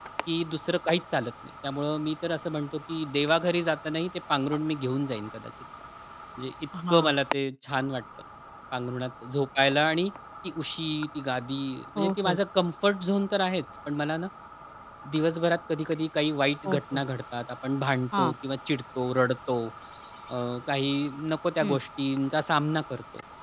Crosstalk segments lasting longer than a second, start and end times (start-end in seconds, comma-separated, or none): none